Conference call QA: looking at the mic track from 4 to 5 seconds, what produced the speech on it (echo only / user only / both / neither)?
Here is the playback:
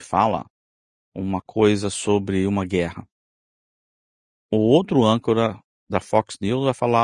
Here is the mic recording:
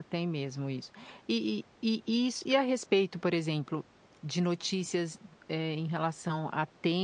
user only